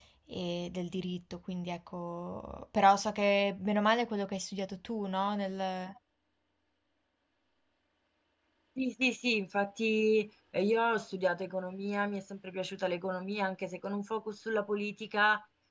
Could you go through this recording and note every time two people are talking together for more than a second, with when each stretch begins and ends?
none

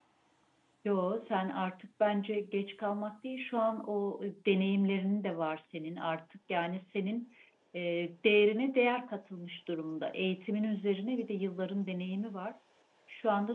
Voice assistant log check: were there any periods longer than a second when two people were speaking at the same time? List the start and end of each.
none

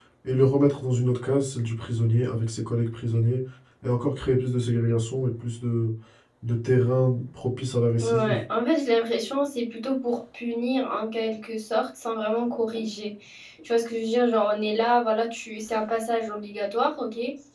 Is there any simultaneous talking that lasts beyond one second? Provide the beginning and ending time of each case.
none

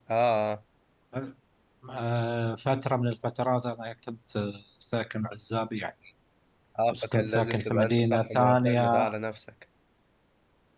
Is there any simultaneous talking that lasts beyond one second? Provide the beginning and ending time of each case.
6.9-9.1

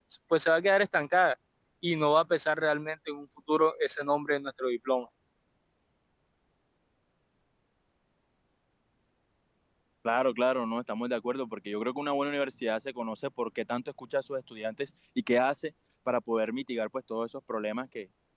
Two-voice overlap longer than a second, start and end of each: none

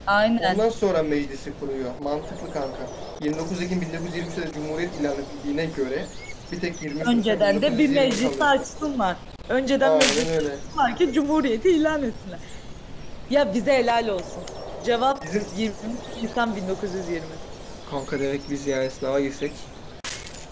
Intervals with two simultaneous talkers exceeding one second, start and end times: 7.0-8.5

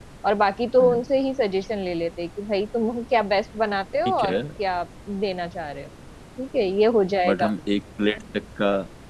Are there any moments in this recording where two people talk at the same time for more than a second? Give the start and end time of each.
none

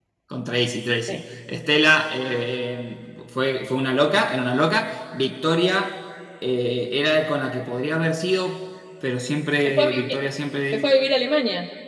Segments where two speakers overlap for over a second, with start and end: none

